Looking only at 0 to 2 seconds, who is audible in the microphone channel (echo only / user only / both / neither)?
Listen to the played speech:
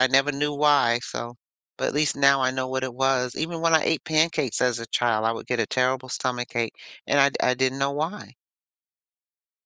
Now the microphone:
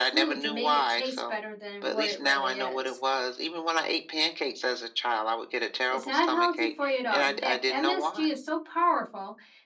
both